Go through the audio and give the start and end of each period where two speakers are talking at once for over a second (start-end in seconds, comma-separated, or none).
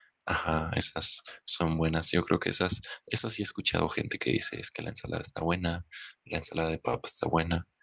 none